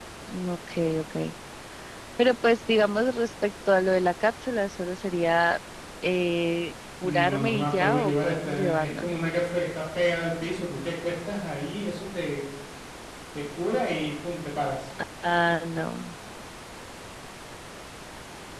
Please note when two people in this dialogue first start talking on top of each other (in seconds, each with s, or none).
7.0 s